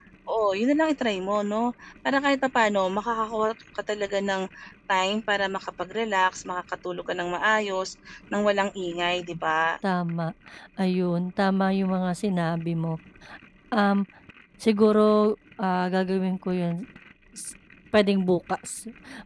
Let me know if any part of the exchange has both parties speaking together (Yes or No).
No